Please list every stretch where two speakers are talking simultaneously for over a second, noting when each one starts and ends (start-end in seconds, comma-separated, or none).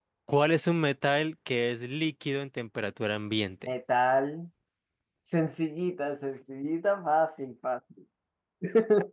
none